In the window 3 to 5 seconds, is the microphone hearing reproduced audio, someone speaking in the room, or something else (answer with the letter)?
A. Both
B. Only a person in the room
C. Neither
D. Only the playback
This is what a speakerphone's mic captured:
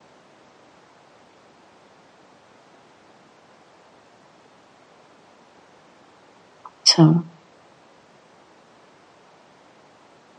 C